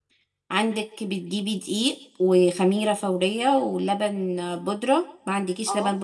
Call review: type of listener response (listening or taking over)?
listening